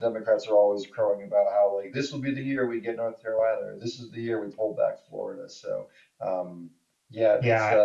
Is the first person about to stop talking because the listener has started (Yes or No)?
Yes